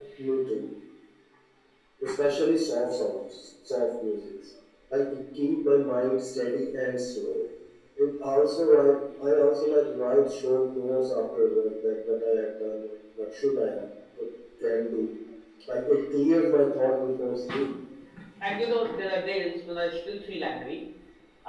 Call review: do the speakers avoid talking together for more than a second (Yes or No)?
Yes